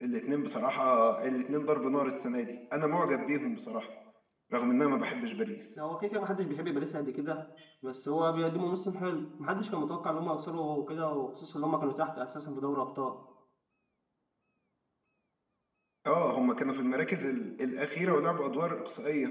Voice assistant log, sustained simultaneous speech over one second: none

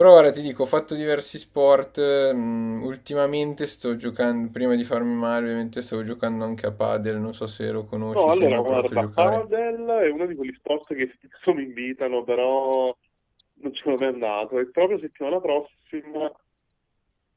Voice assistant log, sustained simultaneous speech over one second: present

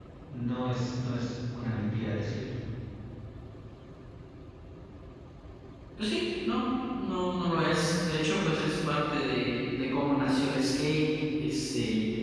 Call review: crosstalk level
none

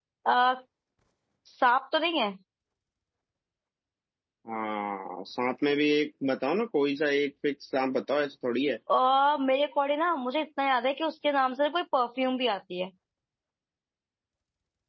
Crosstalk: none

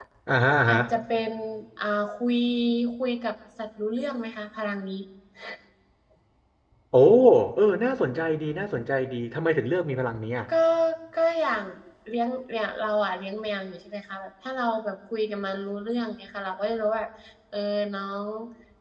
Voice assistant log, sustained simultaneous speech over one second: none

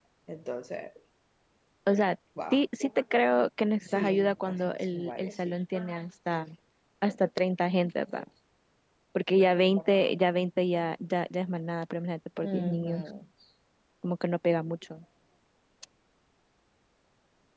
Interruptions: present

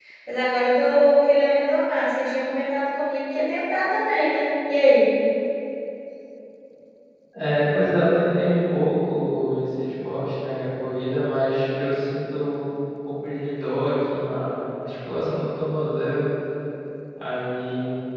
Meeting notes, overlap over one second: none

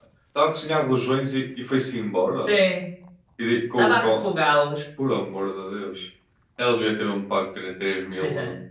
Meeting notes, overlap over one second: none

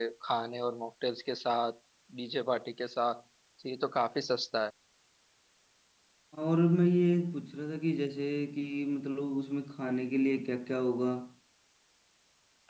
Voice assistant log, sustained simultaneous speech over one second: none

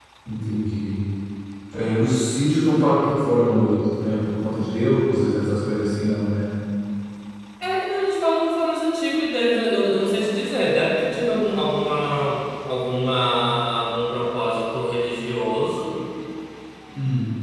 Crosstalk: none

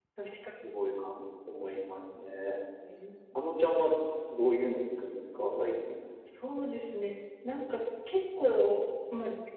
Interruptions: none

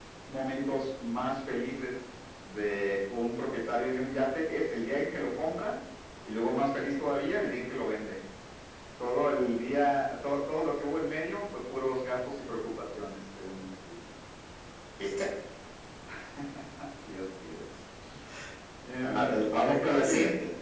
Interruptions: present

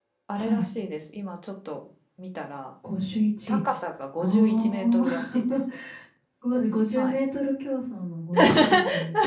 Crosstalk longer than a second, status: present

